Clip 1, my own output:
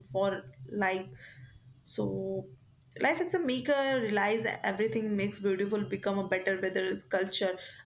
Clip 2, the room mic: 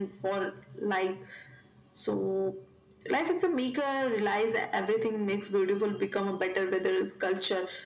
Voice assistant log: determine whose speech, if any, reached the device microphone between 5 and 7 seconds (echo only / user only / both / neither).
echo only